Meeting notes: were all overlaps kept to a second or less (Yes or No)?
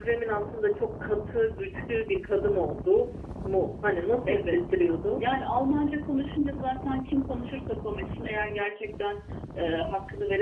Yes